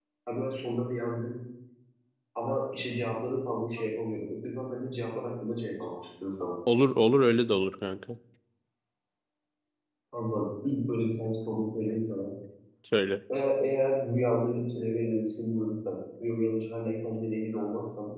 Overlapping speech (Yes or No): No